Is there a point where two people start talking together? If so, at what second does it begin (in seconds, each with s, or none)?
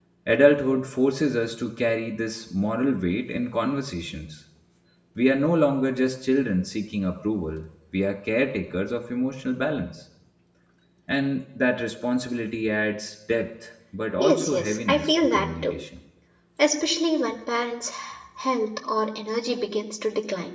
14.2 s